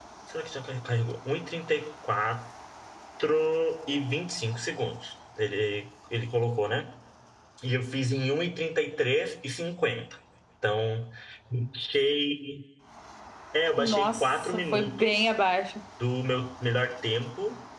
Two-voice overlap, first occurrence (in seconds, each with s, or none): 13.8 s